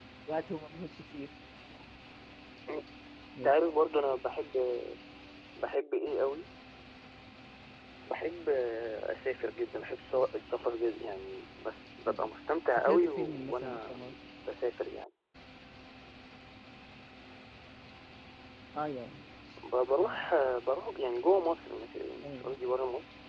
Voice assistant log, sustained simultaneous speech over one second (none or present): present